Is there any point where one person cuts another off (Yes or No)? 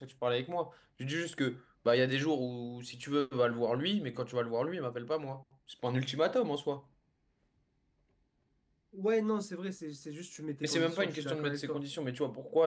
Yes